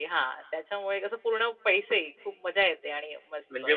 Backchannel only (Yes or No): Yes